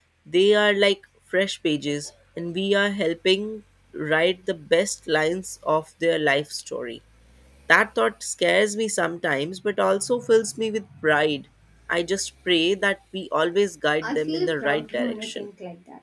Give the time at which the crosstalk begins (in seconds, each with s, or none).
14.0 s